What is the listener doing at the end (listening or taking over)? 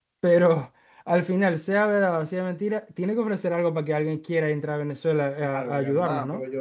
taking over